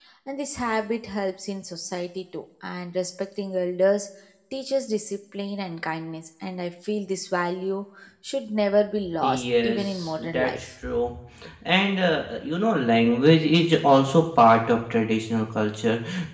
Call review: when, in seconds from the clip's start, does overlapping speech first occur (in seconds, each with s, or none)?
9.2 s